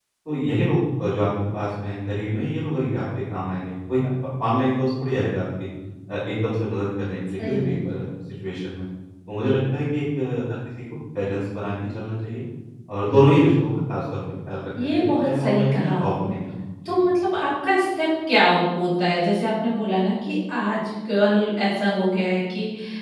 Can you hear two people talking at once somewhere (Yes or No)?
Yes